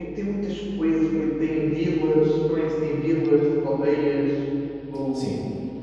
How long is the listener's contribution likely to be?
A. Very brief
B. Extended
B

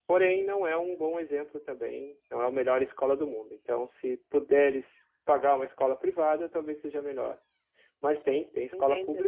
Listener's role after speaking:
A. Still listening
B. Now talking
B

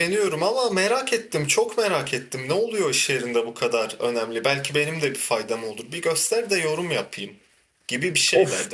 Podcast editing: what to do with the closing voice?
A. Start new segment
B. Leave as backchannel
A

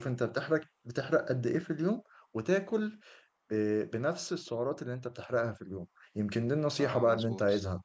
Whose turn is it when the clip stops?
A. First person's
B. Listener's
A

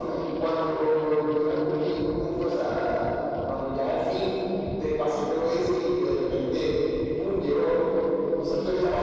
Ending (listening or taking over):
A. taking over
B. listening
B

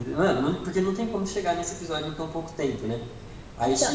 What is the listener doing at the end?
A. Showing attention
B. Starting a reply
B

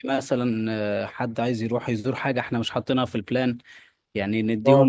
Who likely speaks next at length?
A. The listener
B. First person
A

